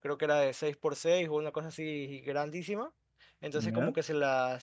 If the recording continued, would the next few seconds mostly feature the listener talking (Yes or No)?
No